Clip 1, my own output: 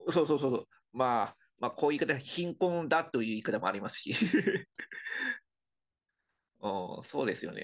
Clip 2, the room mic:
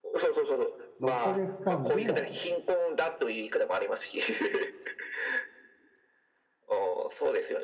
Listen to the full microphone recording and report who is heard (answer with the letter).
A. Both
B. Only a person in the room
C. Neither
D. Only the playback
A